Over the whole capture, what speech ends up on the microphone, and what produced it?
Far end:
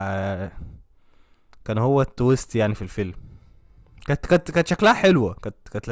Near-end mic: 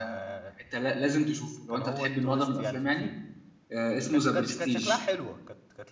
both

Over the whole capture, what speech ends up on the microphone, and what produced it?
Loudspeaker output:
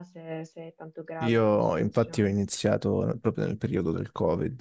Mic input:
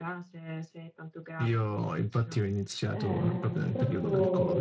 both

